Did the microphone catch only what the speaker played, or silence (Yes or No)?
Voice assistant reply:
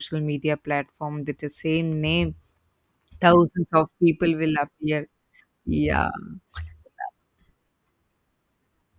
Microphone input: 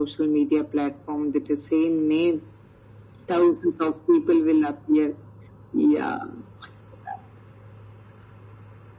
Yes